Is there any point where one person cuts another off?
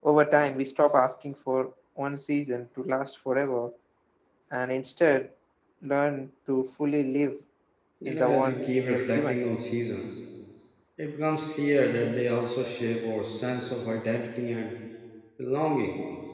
Yes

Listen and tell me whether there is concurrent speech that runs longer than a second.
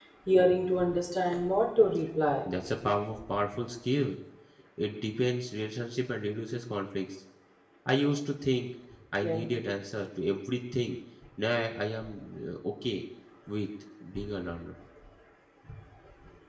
No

